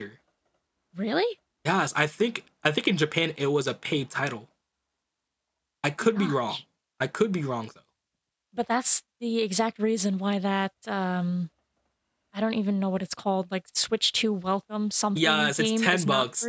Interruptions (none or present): present